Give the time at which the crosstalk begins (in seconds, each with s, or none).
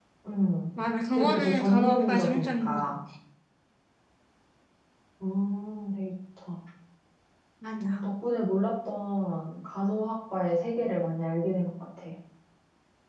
1.1 s